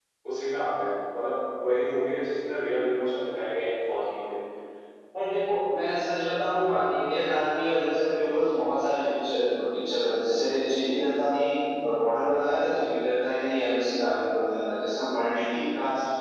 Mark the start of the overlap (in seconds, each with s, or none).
none